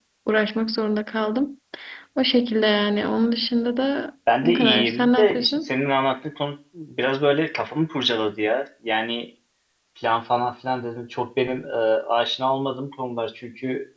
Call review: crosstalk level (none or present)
present